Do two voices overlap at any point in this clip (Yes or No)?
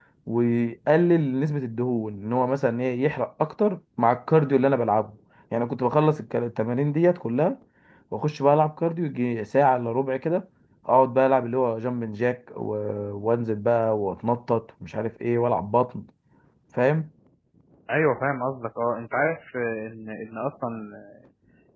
No